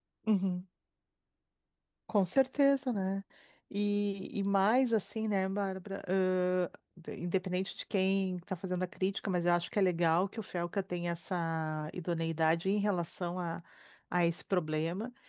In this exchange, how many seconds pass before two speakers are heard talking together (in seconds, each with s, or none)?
none